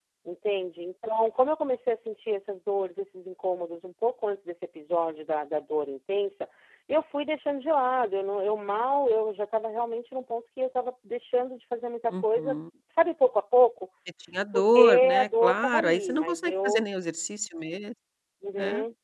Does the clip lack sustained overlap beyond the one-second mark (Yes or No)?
No